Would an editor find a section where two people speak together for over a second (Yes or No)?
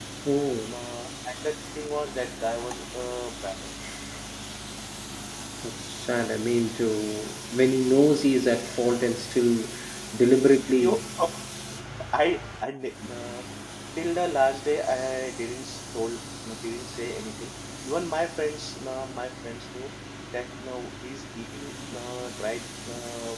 No